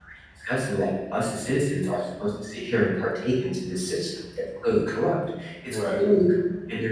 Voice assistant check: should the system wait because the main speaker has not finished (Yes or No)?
Yes